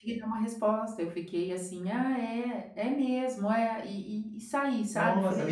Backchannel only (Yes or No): No